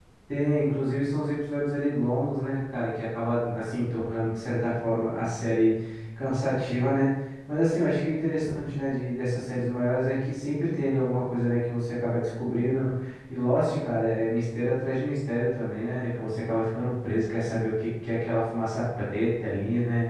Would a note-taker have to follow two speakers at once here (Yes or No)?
No